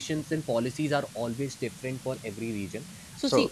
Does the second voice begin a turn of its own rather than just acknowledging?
No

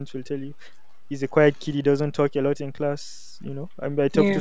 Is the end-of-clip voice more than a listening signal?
No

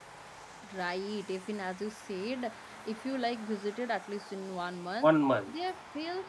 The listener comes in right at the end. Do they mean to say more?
No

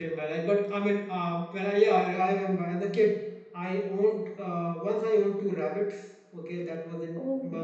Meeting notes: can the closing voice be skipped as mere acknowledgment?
Yes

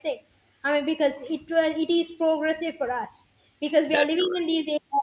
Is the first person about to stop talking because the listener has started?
No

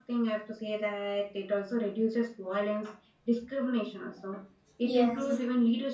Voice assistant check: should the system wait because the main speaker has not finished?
Yes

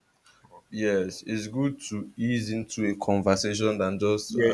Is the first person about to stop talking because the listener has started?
Yes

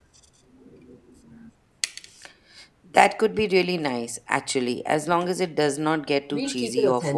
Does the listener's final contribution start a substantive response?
Yes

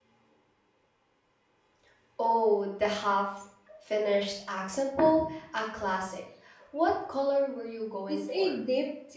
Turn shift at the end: Yes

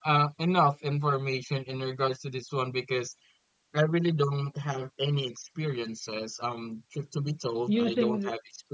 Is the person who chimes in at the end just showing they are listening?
Yes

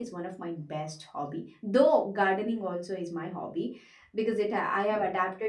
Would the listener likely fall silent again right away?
Yes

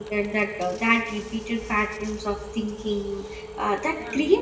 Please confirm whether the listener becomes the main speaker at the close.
No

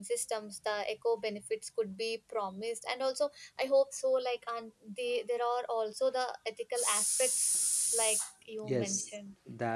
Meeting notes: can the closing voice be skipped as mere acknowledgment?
No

